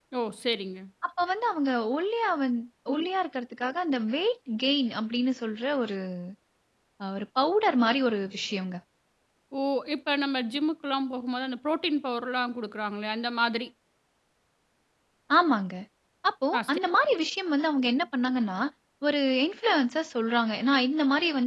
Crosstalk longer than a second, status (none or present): none